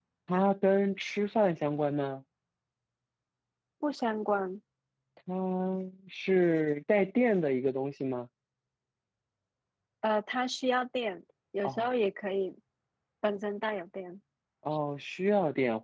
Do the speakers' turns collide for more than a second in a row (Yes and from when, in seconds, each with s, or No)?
No